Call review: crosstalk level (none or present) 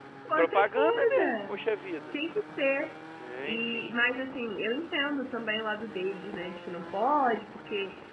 present